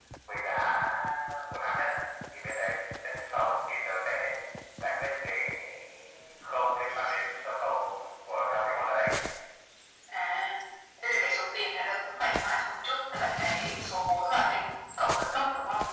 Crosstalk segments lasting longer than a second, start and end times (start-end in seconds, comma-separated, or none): none